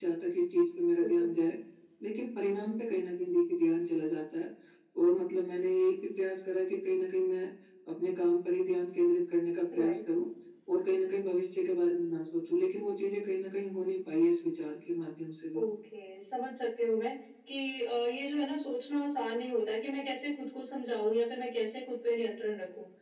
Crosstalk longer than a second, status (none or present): none